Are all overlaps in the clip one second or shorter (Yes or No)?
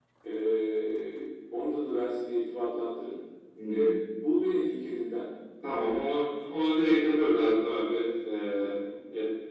Yes